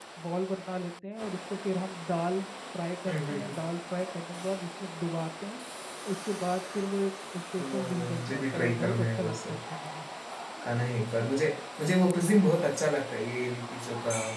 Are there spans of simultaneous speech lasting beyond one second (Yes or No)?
Yes